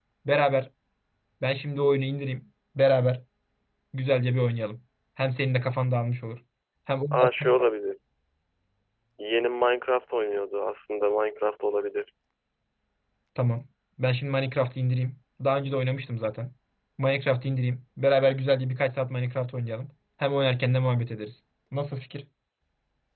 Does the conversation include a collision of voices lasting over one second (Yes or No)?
No